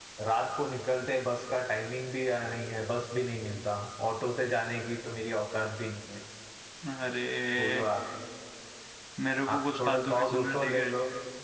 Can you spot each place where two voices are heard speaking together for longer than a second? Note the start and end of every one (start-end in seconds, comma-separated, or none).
9.5-10.9